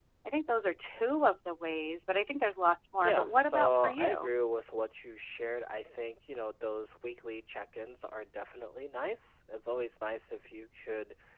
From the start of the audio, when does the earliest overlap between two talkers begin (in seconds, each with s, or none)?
3.0 s